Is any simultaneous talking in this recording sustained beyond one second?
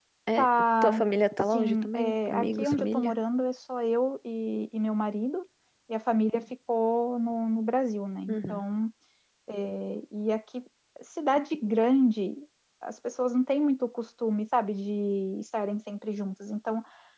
Yes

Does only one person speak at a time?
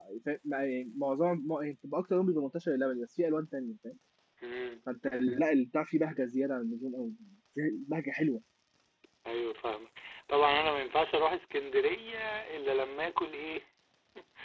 Yes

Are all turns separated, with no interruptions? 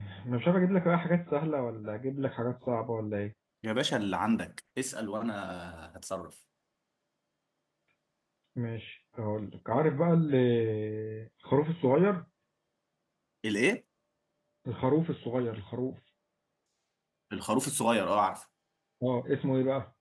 Yes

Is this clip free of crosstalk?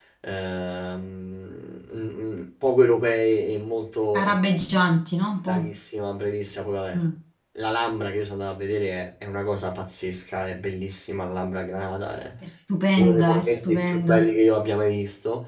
No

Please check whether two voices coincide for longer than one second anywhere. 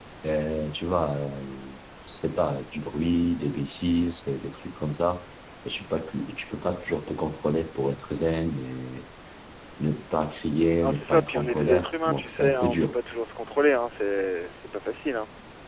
Yes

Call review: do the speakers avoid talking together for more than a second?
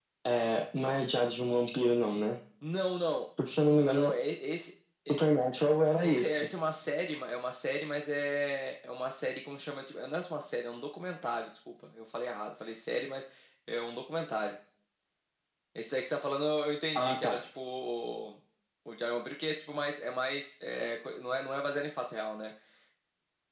Yes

